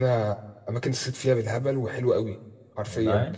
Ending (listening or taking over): listening